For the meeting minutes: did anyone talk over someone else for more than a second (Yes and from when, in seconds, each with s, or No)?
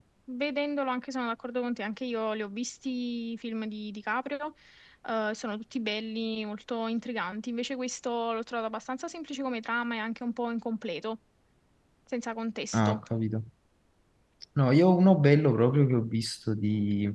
No